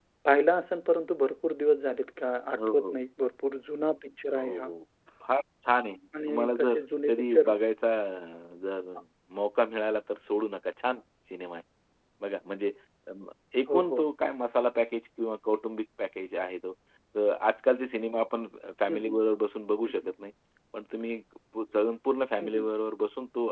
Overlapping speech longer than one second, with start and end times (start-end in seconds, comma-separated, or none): 6.3-7.5